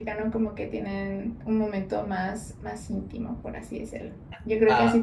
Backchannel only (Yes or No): Yes